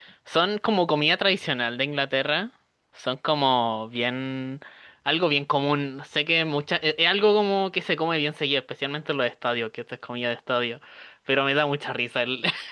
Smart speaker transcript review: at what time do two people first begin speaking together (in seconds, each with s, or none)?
none